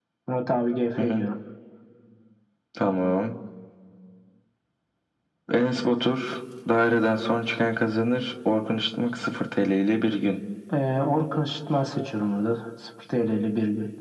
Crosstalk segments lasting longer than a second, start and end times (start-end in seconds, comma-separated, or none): none